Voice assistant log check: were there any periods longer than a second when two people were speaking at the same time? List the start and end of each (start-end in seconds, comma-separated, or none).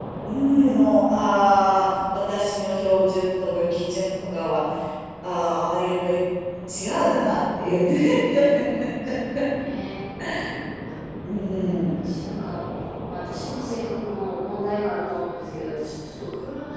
none